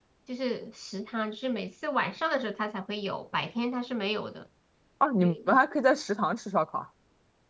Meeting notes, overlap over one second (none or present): none